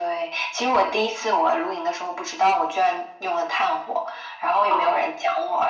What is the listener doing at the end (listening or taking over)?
listening